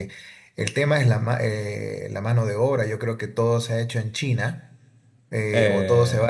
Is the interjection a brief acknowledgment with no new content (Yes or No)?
Yes